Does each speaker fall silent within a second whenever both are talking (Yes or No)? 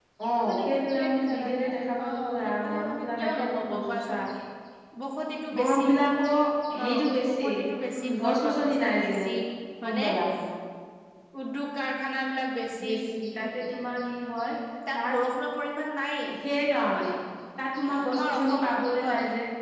No